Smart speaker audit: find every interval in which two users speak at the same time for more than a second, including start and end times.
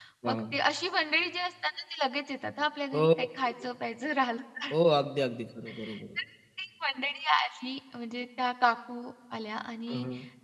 none

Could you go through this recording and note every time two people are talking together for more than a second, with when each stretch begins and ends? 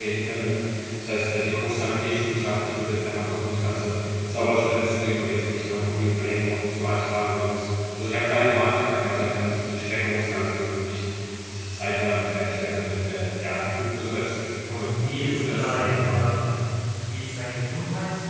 15.0-16.3

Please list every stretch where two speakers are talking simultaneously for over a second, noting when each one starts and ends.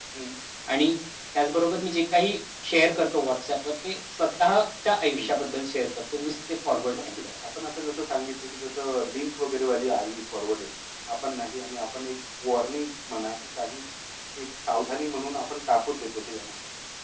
none

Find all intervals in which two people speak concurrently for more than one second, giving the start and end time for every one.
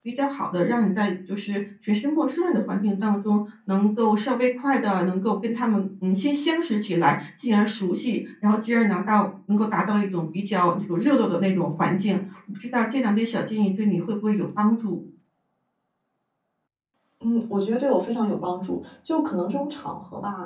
none

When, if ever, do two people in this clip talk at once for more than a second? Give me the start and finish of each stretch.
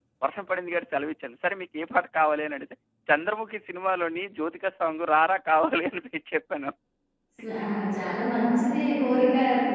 none

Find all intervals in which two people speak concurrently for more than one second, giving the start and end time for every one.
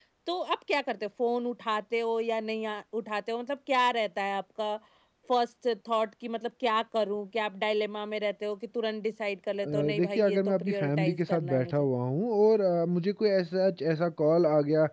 9.7-11.8

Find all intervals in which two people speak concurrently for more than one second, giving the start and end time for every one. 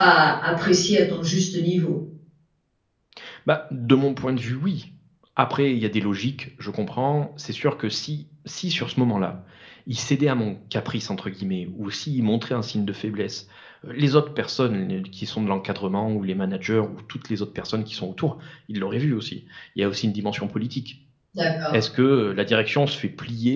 none

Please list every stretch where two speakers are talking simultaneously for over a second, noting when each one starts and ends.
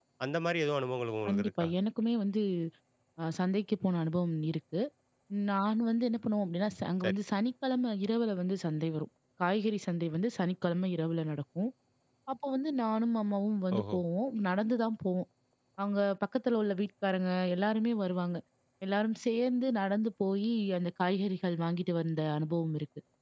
none

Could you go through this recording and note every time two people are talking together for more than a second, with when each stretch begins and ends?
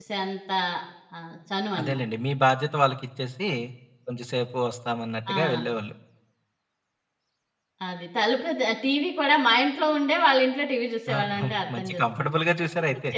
11.2-12.4

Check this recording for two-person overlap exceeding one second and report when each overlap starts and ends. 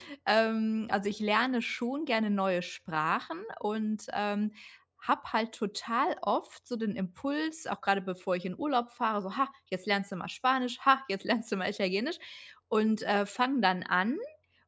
none

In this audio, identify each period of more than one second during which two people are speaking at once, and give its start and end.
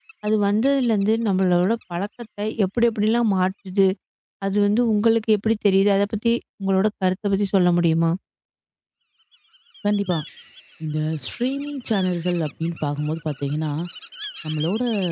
none

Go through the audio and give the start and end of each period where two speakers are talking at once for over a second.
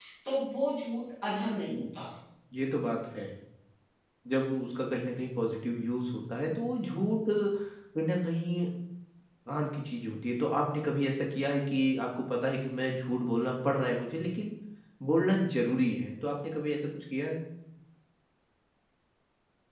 none

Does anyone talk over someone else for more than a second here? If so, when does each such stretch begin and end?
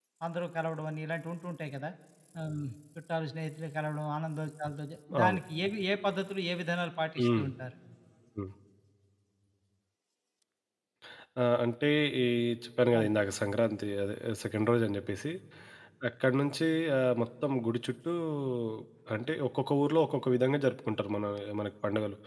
none

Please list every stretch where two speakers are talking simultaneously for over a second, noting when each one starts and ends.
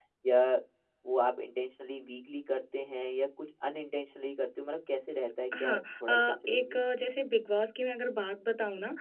5.6-6.8

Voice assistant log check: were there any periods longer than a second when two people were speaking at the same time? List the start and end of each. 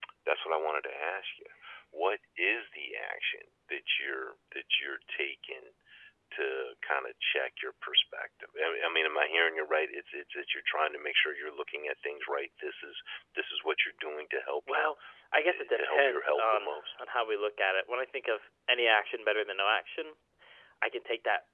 15.5-17.0

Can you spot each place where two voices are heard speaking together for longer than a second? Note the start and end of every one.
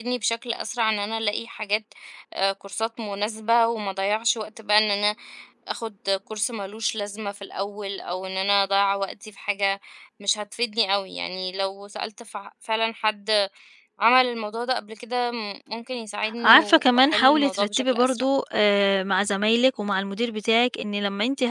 16.4-18.2

